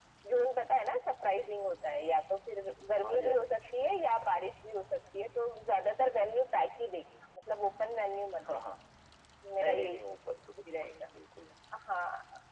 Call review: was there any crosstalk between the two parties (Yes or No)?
Yes